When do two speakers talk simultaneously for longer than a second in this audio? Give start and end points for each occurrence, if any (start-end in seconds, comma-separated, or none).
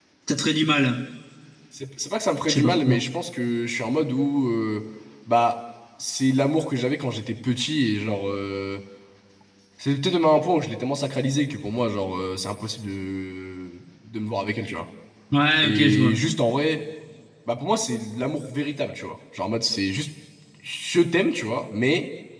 none